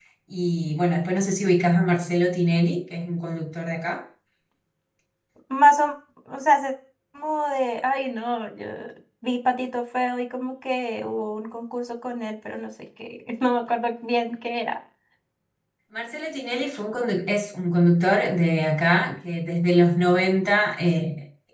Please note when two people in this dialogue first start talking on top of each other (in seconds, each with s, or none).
none